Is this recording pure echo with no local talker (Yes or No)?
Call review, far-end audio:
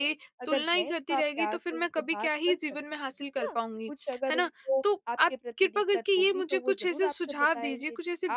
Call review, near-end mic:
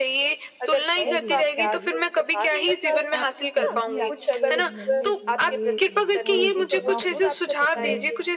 No